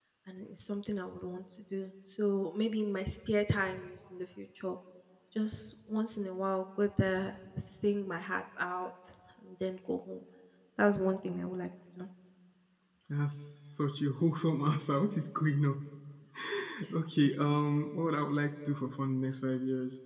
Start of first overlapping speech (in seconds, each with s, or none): none